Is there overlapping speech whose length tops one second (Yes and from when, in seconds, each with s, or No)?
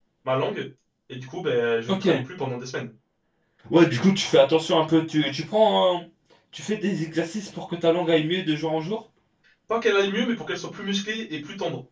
No